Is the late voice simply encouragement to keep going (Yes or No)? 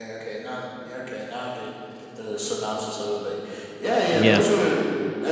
Yes